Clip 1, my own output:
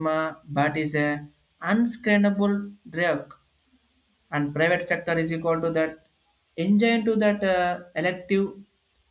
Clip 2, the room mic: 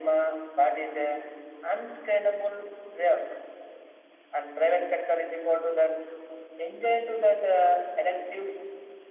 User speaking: No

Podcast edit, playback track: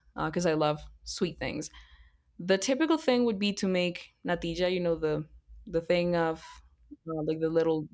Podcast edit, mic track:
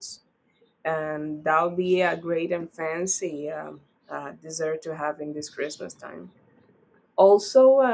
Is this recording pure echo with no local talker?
No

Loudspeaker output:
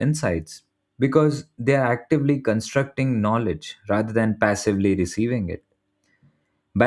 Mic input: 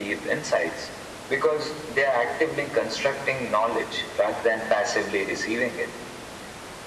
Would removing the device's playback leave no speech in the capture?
Yes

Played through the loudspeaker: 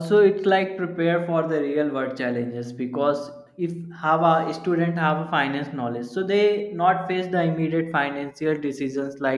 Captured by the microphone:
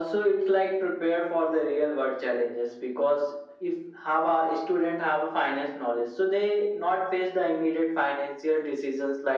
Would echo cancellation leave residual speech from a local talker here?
No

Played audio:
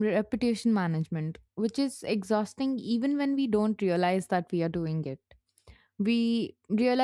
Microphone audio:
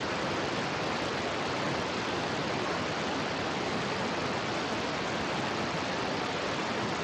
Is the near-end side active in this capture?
No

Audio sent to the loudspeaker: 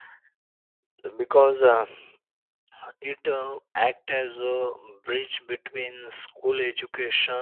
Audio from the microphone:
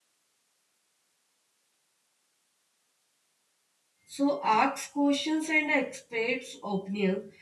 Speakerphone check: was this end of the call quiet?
No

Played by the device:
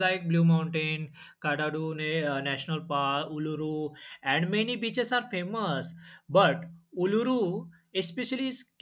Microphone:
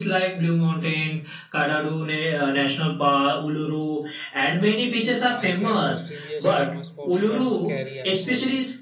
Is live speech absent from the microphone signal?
No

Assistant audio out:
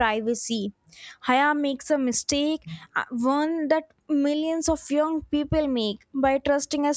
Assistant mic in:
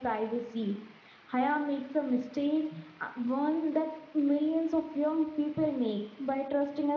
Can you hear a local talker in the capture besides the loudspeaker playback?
No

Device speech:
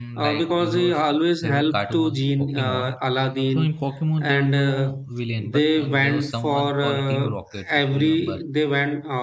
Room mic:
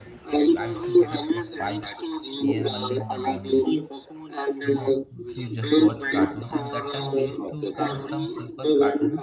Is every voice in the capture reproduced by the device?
No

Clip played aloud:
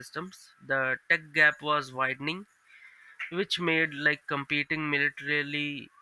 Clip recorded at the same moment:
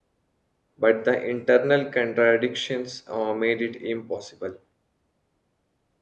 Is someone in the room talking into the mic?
Yes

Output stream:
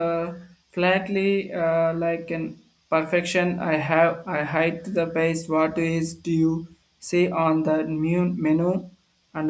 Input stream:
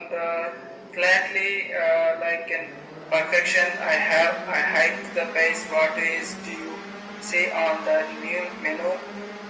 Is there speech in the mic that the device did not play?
No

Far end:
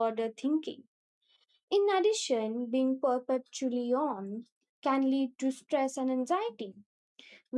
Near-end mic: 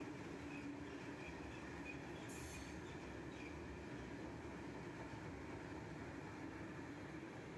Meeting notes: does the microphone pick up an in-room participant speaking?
No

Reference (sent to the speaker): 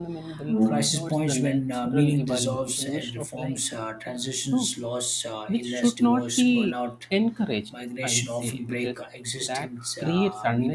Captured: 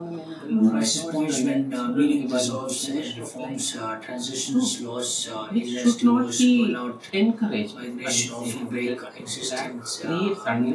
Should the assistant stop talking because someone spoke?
No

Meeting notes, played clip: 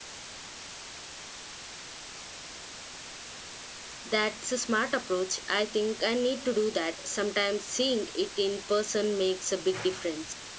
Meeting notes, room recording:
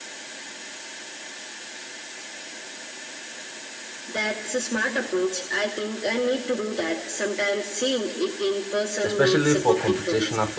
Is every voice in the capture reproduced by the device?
No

